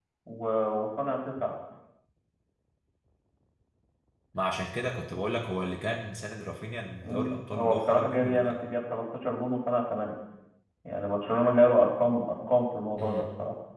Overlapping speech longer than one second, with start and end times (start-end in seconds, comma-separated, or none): 7.0-8.5